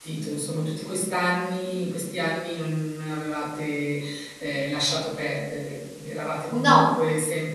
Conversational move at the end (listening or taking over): listening